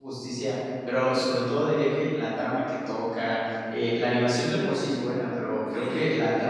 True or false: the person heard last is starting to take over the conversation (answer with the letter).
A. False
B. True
A